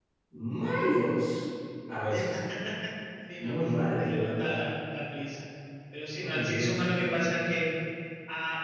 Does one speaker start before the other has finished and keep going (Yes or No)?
Yes